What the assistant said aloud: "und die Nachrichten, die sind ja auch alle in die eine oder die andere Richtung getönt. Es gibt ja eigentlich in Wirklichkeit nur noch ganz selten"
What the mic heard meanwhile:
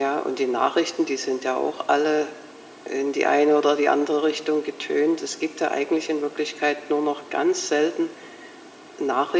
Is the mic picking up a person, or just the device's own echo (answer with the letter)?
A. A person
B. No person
B